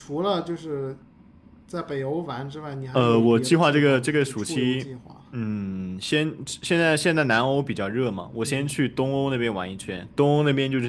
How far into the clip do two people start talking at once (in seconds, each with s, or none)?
2.9 s